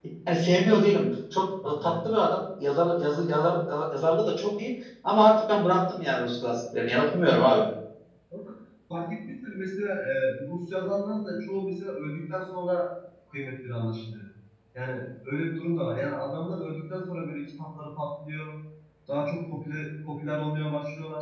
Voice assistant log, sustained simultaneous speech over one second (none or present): none